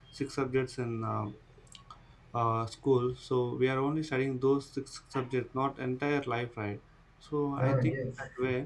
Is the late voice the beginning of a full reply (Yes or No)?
No